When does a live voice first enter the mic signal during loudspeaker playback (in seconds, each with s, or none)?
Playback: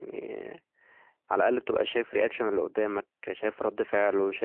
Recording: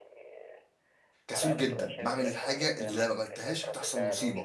1.3 s